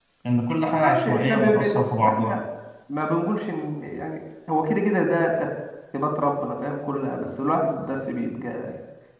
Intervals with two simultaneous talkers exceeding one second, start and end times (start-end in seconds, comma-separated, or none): 0.6-2.4